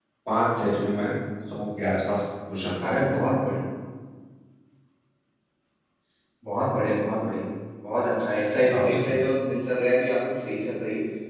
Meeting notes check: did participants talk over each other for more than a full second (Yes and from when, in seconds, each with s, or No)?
No